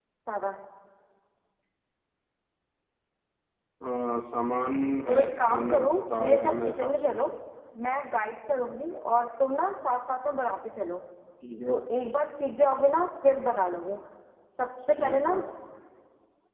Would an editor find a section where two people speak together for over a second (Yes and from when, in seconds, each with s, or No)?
Yes, from 5.1 s